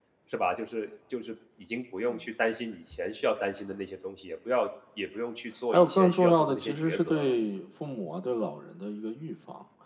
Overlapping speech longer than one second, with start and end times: 5.7-7.3

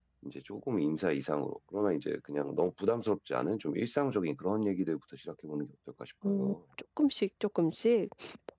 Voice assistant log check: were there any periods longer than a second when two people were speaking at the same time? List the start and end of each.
none

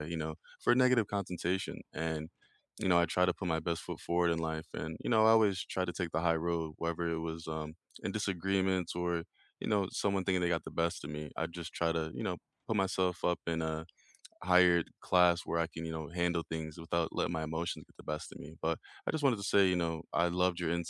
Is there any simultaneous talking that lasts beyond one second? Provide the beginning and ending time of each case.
none

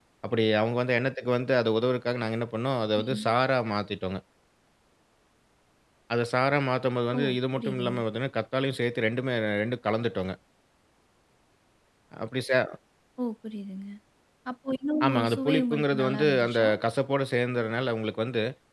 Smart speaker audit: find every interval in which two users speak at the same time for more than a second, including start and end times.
15.0-16.7

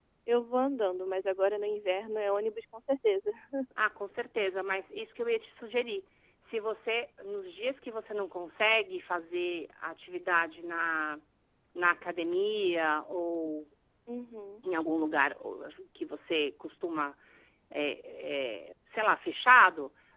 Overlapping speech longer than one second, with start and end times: none

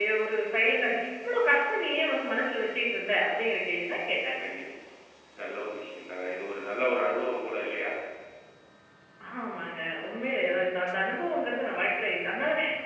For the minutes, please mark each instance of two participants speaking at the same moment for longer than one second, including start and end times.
none

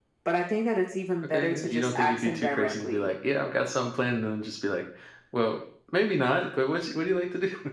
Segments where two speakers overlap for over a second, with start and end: 1.2-3.1

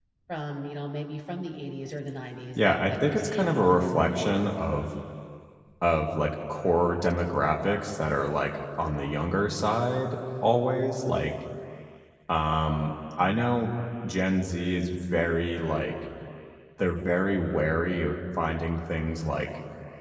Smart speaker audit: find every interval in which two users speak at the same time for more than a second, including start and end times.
2.6-4.6

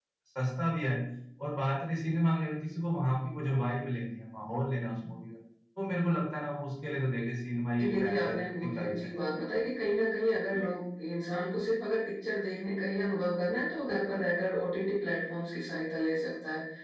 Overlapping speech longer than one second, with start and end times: 7.8-9.3

